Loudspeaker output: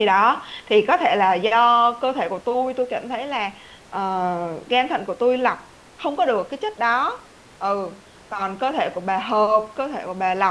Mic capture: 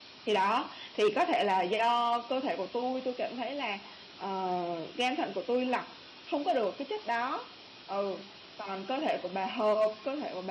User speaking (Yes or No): No